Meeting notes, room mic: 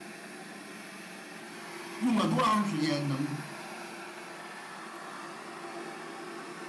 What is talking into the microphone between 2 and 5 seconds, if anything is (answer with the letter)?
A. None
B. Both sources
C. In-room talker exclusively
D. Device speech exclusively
C